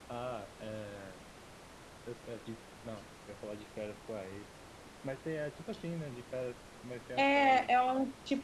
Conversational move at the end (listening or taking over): taking over